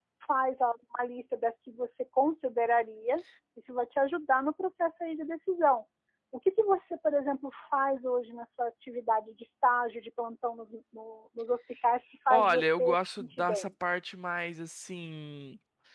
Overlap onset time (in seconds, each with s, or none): 12.3 s